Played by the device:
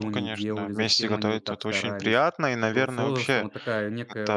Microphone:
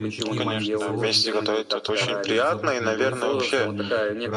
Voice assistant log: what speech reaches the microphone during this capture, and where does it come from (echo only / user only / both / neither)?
both